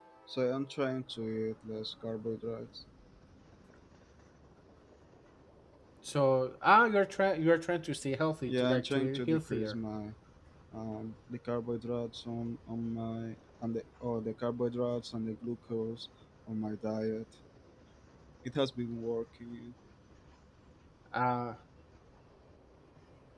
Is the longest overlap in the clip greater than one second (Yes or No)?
Yes